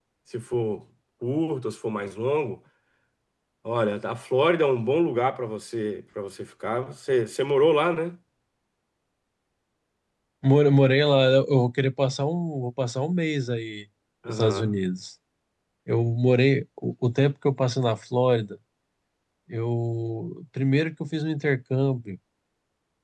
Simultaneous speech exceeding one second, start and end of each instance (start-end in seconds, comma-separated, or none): none